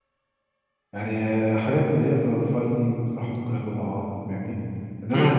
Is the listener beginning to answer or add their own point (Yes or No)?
Yes